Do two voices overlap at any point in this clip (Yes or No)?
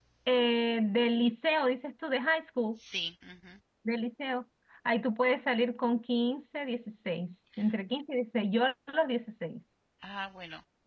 No